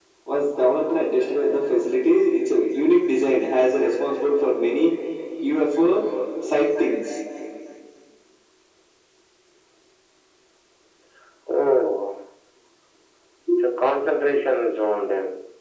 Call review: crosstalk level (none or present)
none